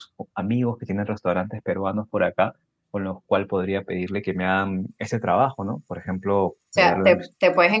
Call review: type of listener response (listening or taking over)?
taking over